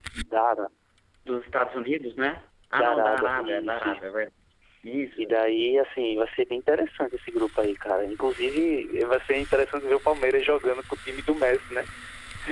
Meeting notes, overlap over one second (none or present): present